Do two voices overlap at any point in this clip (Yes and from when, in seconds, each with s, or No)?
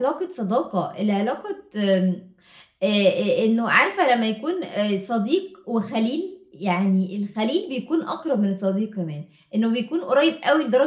No